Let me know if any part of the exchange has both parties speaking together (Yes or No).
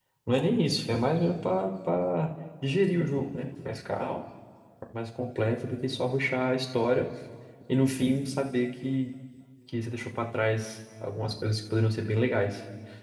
No